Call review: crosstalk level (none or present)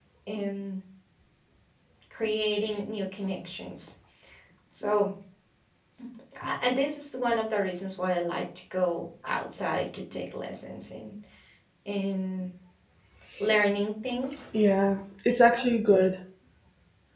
none